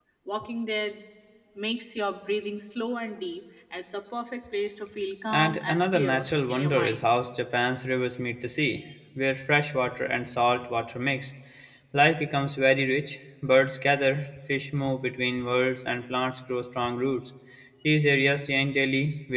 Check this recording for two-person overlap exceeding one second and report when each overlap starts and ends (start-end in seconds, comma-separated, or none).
5.3-7.1